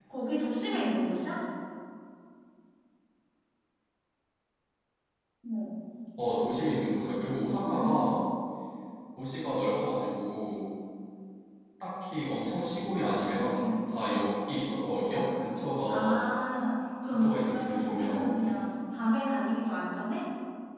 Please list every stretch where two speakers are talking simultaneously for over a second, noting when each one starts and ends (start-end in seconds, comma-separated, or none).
17.1-18.5